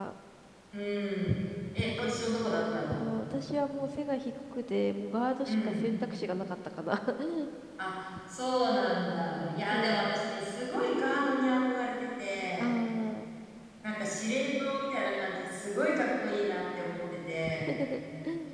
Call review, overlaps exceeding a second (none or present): none